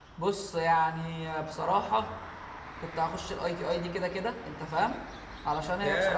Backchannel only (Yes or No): Yes